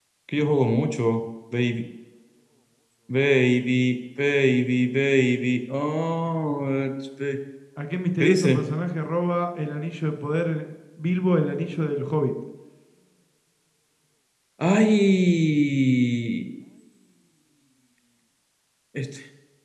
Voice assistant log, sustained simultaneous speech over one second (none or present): none